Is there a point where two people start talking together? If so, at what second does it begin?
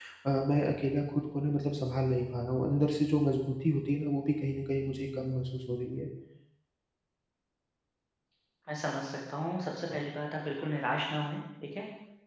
none

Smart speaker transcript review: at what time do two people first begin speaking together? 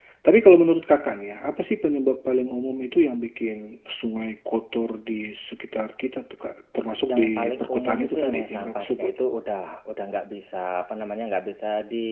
7.1 s

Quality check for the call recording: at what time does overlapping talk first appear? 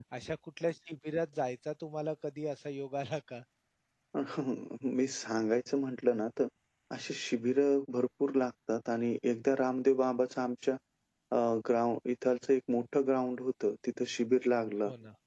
none

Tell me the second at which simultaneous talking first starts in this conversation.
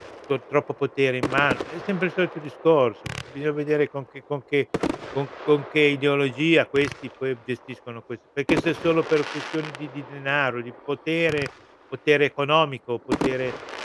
none

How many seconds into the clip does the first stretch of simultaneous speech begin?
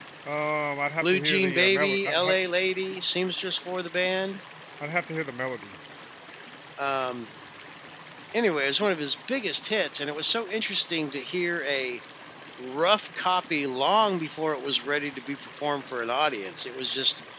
1.0 s

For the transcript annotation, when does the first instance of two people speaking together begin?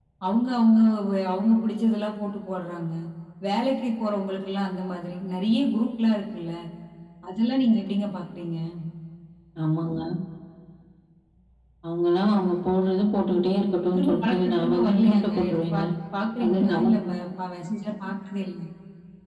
13.9 s

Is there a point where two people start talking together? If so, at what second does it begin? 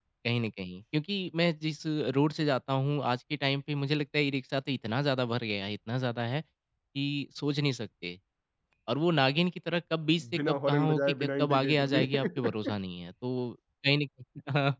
10.5 s

